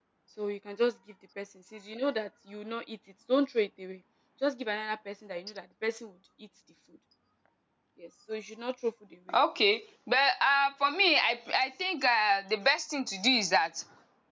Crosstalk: none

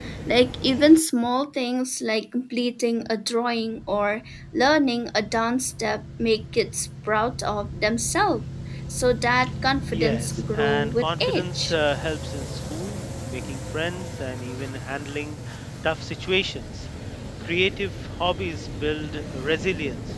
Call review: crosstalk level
present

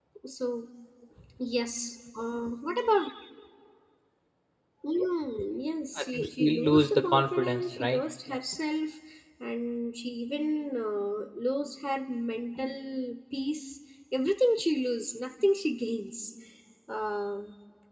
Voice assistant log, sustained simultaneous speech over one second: present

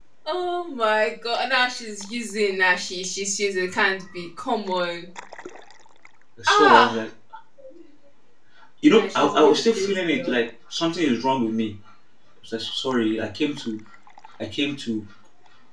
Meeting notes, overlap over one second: present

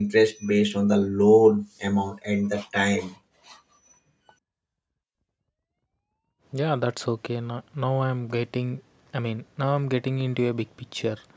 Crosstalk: none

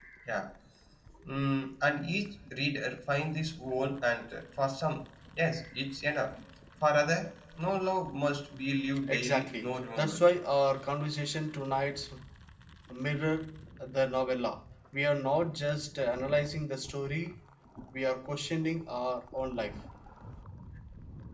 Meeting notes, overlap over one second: present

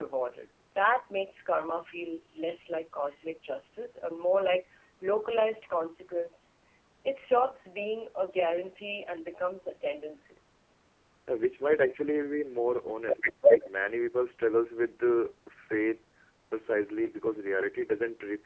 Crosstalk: none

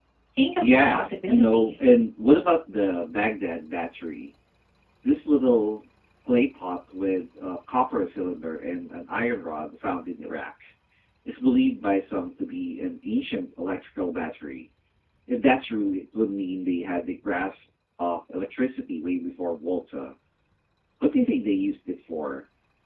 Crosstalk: present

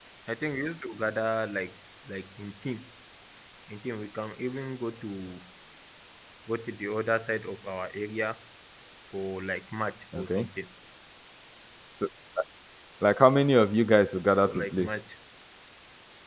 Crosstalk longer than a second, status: none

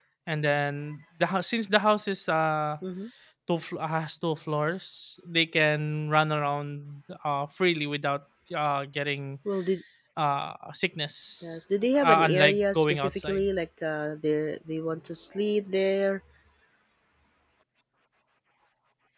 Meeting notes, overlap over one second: present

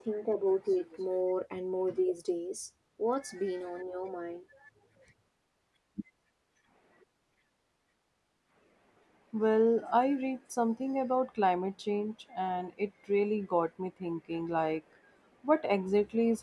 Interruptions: none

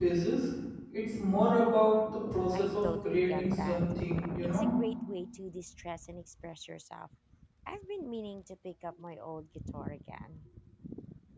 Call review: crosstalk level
present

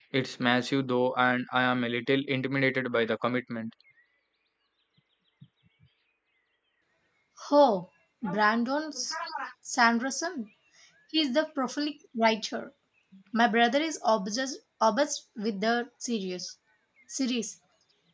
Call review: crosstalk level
none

